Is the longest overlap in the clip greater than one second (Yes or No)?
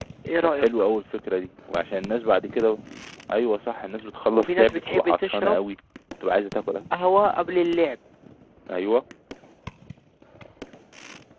Yes